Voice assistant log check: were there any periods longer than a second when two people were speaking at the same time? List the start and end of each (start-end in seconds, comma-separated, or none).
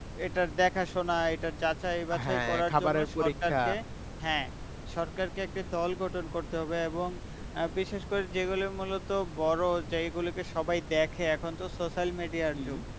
2.2-3.6